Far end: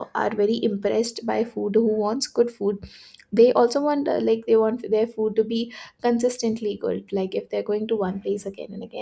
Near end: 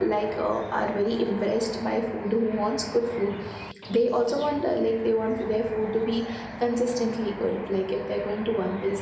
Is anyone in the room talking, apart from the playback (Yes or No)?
No